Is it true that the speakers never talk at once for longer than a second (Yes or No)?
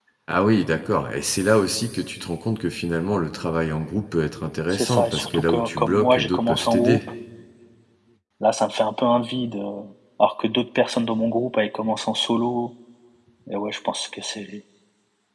No